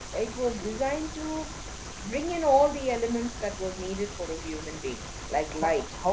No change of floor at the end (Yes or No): No